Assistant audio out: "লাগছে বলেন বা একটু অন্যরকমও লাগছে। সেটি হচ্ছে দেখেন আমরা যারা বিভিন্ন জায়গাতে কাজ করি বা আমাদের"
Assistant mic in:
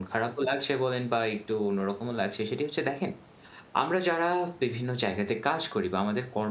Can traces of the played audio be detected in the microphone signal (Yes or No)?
Yes